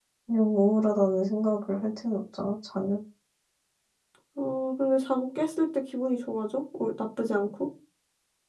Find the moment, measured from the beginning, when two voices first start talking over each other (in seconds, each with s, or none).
none